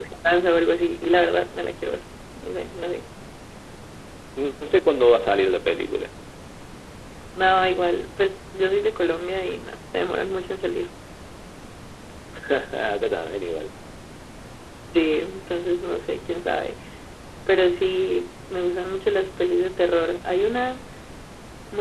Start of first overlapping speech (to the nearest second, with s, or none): none